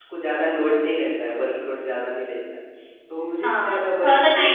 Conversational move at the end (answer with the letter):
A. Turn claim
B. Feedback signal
A